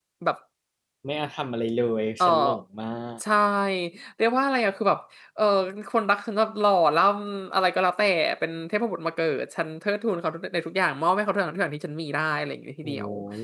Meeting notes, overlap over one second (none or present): none